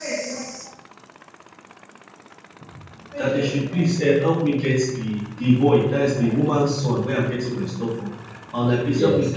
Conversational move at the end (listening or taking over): listening